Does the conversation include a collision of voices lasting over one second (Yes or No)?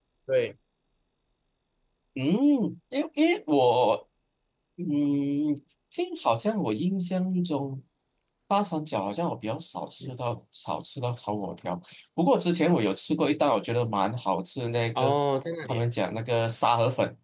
No